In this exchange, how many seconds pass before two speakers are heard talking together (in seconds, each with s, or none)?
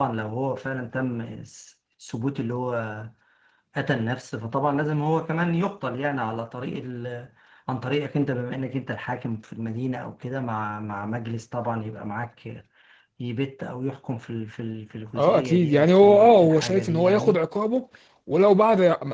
15.2 s